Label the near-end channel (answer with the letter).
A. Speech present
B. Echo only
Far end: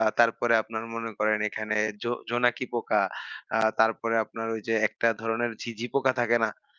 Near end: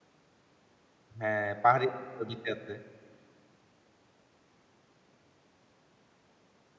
A